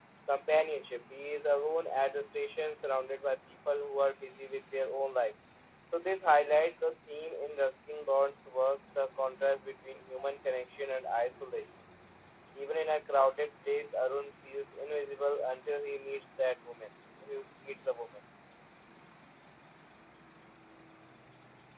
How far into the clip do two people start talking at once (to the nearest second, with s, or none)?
none